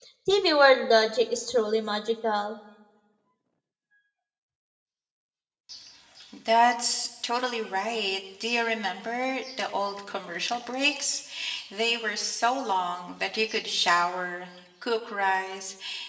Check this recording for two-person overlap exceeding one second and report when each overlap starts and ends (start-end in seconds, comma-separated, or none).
none